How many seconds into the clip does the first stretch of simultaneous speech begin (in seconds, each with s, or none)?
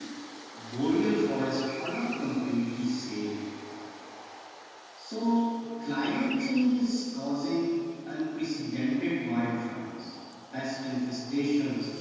none